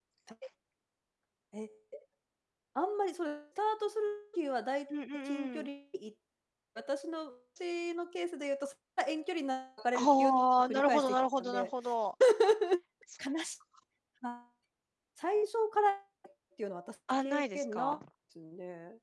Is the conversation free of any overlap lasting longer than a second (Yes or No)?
No